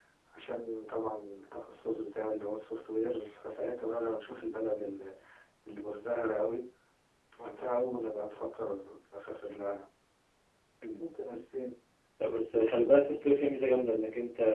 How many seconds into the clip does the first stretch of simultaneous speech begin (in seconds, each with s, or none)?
none